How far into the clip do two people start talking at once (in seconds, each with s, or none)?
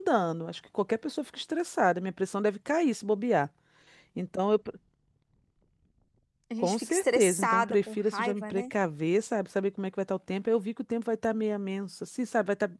6.6 s